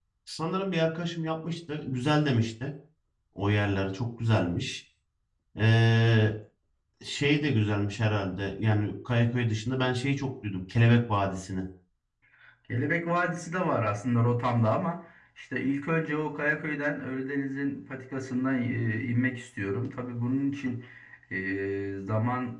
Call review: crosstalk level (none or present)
none